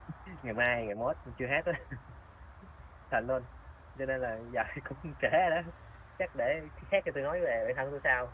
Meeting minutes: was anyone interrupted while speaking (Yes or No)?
No